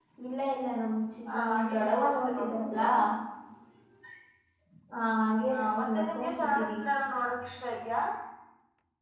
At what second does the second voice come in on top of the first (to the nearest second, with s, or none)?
1 s